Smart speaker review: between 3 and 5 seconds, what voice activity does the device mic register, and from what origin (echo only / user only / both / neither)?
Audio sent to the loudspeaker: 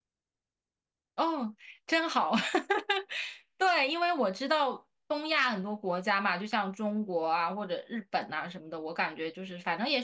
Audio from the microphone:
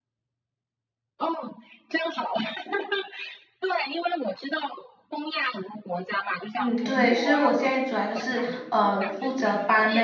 echo only